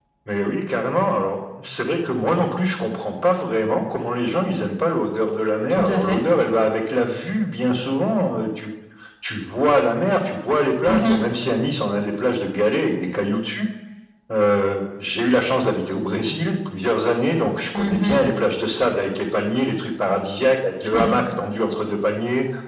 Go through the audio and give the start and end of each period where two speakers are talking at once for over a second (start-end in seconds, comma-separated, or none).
none